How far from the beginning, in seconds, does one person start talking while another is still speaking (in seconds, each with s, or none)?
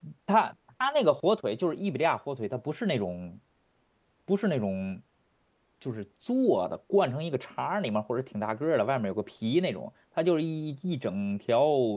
none